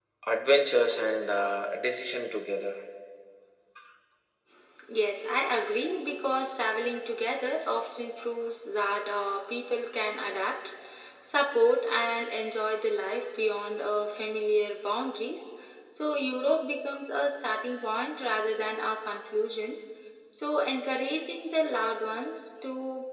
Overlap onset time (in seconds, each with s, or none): none